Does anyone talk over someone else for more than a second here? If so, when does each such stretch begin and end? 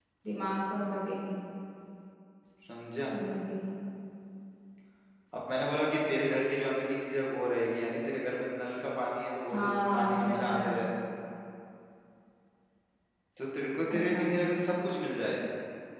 9.5-10.7

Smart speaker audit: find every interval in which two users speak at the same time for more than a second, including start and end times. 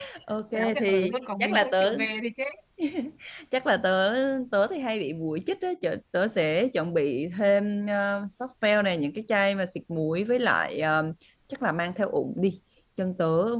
0.5-2.0

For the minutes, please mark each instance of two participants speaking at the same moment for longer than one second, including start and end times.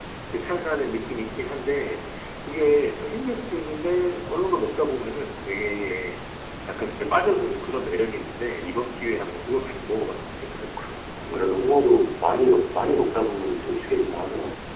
none

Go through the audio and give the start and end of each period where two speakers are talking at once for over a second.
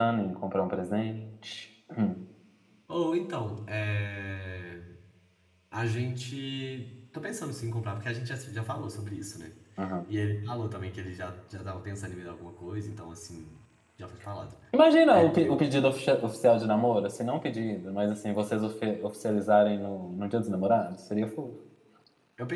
none

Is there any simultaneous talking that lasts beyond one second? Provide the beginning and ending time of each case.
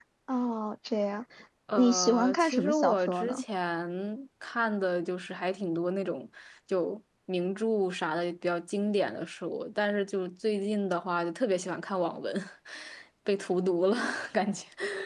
1.8-3.4

